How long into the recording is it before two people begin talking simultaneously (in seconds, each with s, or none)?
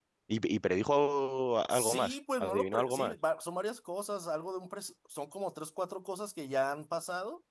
1.7 s